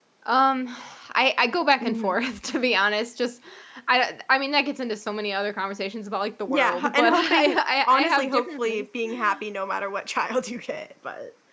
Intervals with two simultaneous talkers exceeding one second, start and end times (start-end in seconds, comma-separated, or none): 6.5-8.9